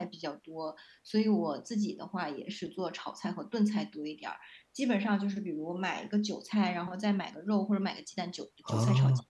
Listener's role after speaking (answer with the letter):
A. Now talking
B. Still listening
B